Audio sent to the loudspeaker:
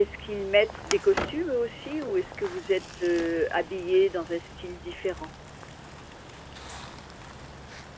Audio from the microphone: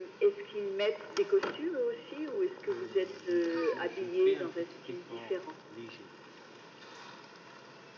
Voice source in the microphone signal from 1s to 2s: echo only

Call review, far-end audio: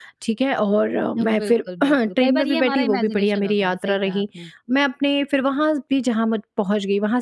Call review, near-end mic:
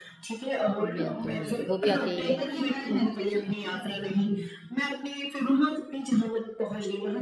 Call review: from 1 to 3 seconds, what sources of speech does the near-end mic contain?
both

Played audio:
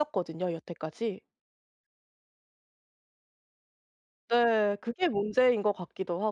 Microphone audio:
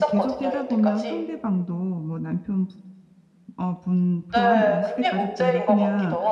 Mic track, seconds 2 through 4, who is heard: user only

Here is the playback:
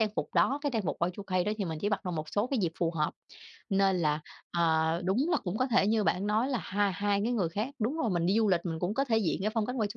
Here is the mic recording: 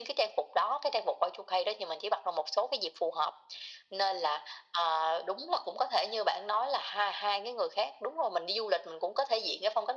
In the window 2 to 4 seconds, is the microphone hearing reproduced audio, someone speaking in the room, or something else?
echo only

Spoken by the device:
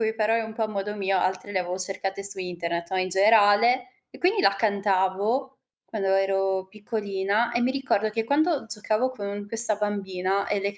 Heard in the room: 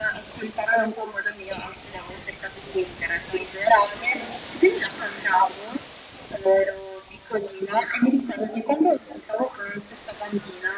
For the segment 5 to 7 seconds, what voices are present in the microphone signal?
echo only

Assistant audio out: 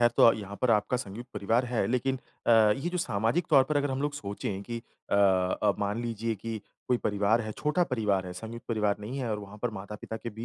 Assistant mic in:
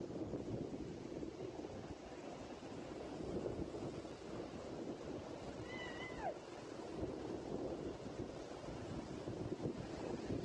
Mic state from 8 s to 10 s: neither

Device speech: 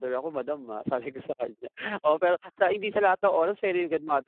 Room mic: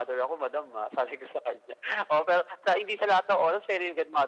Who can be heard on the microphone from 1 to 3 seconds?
echo only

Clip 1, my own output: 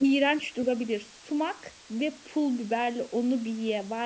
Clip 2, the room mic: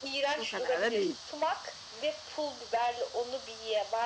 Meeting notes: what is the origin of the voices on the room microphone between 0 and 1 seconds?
both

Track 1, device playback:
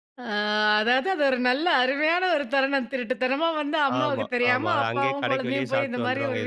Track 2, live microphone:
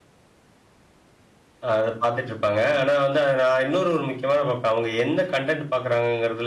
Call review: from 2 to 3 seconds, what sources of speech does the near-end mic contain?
user only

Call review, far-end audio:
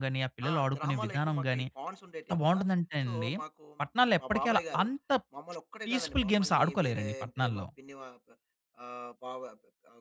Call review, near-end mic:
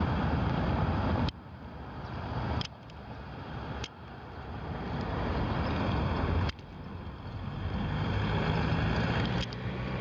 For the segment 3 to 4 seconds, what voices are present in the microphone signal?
neither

